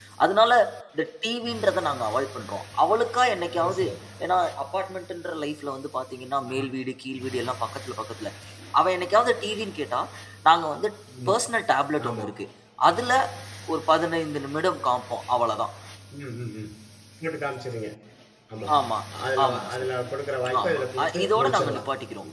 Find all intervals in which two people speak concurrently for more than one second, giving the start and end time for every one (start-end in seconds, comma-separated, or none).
20.6-21.8